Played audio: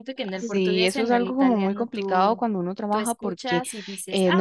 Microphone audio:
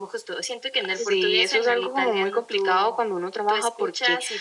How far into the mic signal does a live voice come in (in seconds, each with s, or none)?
none